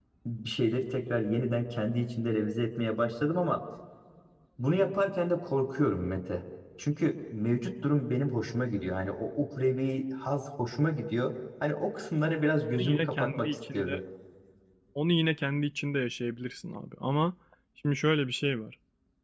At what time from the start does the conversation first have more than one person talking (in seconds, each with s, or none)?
12.8 s